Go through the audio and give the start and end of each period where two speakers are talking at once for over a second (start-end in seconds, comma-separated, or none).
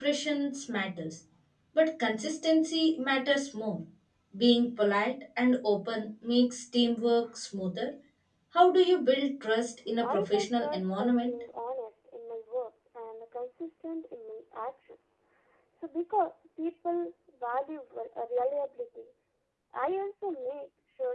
10.0-11.3